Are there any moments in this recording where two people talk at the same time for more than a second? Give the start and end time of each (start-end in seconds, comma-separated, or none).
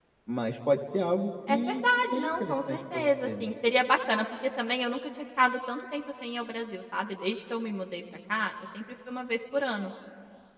1.5-3.5